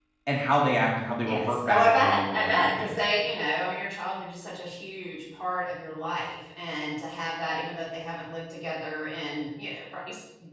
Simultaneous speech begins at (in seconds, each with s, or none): 1.2 s